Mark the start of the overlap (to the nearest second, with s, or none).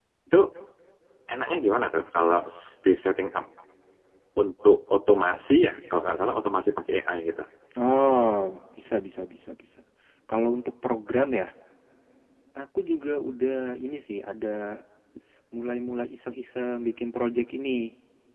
none